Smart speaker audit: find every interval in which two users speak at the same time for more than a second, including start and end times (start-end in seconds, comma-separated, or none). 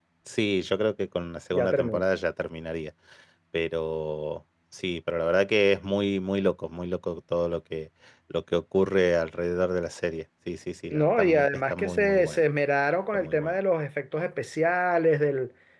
10.9-12.4